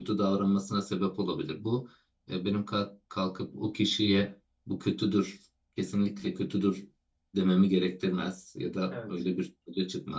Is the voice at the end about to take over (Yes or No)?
No